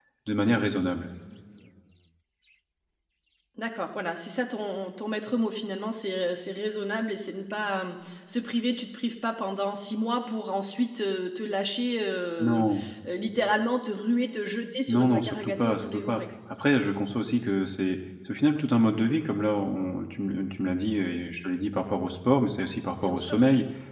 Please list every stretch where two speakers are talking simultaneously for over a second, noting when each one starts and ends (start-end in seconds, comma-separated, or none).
14.9-16.2